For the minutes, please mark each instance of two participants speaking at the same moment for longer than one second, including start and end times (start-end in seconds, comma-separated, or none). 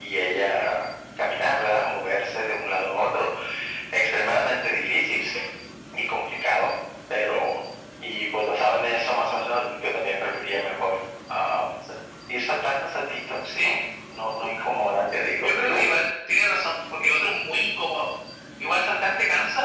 none